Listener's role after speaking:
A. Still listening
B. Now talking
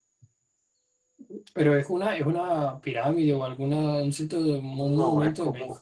B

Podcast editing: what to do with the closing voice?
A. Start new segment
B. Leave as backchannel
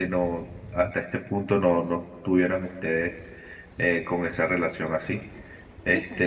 B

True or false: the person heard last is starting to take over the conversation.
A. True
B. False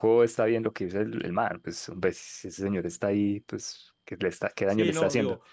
A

